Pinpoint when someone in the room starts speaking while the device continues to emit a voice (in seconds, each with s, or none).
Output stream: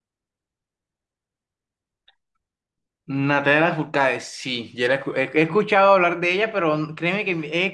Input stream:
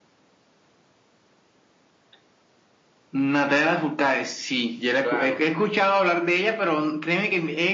5.0 s